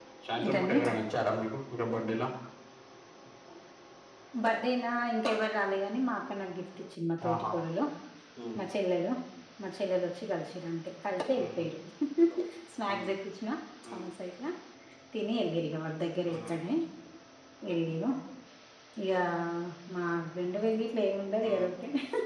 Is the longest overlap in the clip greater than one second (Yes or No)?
No